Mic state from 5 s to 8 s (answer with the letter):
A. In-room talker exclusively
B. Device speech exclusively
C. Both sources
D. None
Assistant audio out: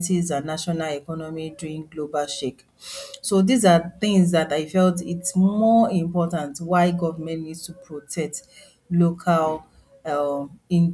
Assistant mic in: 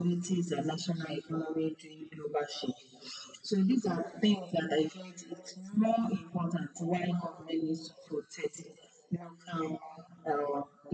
B